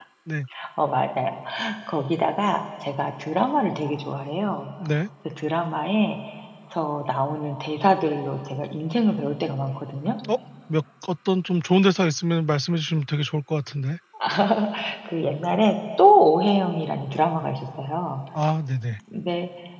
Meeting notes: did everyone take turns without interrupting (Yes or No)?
Yes